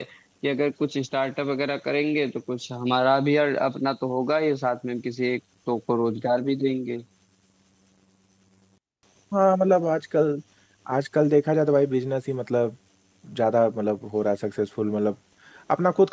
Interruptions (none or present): none